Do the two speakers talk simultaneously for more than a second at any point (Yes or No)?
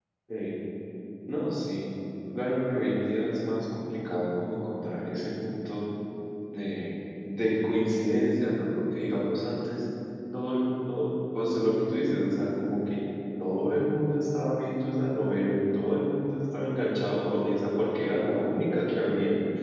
No